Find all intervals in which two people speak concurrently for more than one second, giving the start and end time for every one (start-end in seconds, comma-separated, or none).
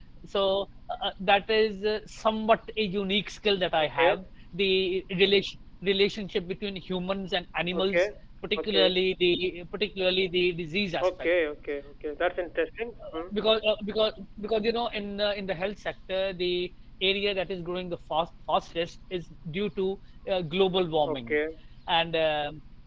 none